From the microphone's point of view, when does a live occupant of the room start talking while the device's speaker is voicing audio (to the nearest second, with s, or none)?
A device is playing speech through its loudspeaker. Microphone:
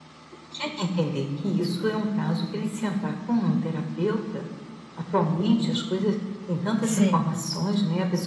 7 s